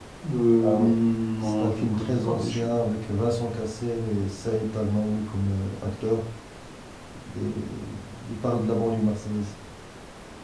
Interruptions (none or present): present